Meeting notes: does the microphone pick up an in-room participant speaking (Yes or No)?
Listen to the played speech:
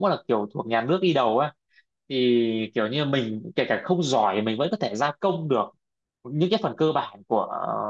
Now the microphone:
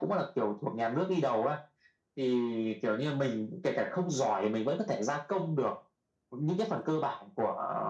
No